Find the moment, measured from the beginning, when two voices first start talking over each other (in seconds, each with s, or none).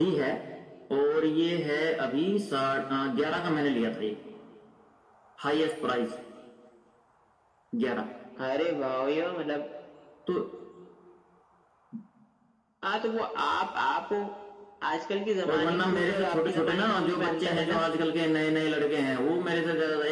15.5 s